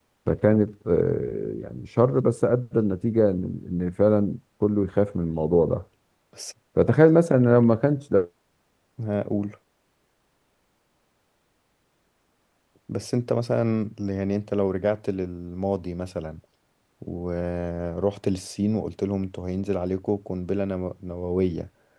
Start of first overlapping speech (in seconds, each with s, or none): none